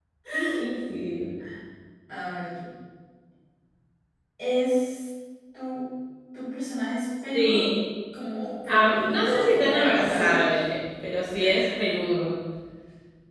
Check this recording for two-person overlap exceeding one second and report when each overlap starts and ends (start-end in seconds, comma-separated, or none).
8.7-10.4